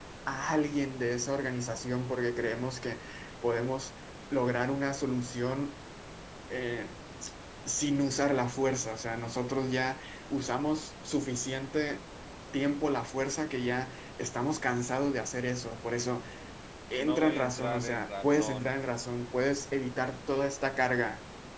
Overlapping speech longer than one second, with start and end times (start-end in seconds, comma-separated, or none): 17.0-18.7